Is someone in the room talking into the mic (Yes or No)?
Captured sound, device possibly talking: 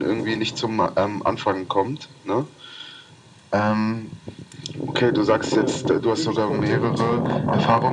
Yes